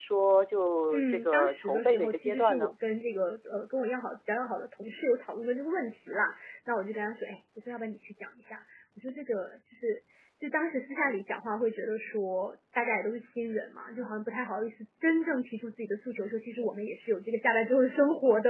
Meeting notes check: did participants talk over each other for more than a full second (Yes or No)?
Yes